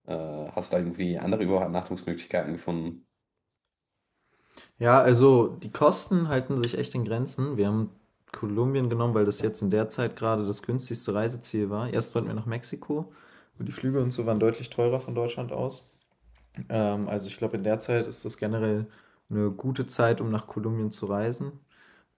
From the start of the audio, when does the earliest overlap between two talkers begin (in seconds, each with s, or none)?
none